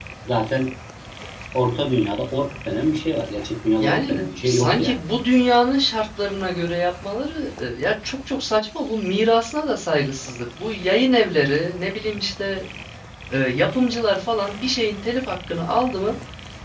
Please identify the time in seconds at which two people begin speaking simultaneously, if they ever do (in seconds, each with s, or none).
3.8 s